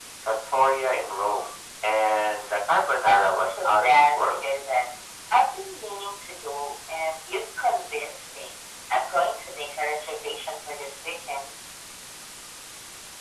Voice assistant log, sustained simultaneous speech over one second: present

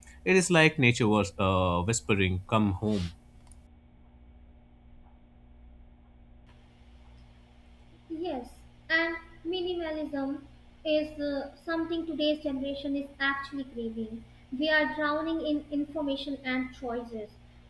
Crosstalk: none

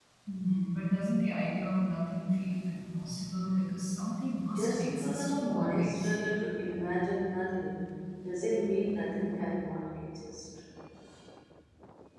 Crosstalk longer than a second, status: present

